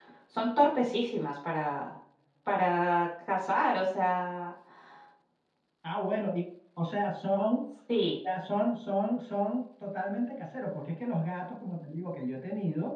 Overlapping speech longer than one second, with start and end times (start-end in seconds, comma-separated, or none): none